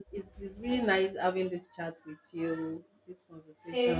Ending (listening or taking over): taking over